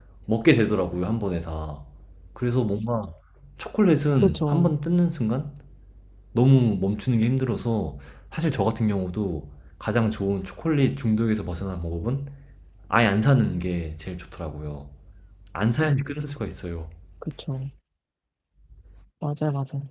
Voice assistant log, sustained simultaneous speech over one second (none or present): none